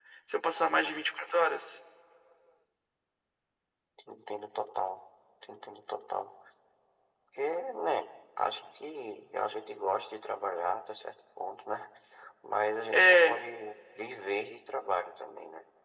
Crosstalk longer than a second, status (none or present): none